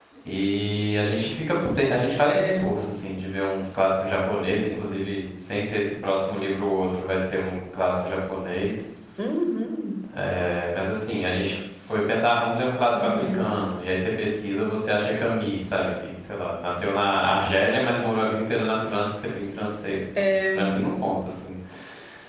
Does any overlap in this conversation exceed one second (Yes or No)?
No